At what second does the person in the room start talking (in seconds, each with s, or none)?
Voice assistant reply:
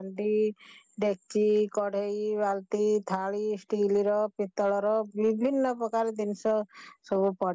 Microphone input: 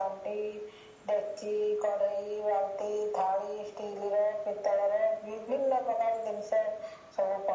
none